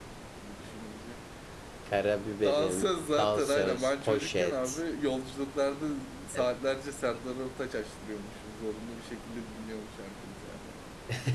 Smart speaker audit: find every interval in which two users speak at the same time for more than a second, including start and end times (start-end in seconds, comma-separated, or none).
2.4-4.8